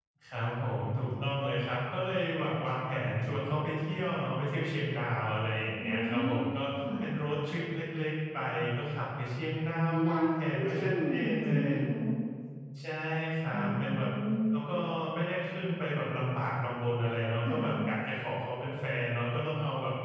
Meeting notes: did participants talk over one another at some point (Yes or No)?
Yes